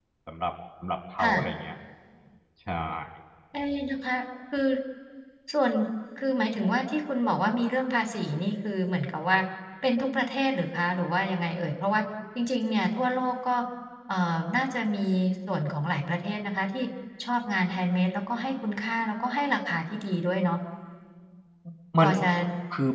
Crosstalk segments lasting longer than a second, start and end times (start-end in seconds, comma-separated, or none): none